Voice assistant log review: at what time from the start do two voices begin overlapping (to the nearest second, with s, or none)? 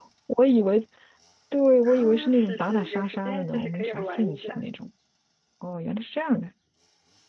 2 s